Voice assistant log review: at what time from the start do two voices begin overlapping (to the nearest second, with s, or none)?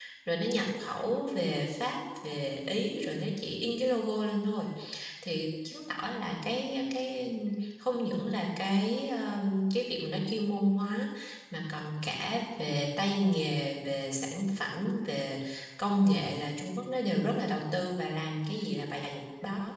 none